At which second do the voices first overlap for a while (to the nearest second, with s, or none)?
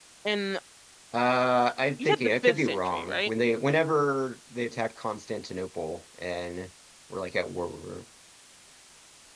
2 s